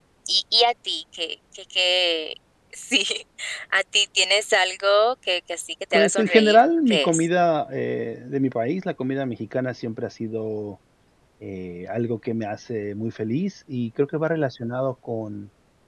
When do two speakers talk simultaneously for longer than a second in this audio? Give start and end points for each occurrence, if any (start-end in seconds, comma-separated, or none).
5.9-7.3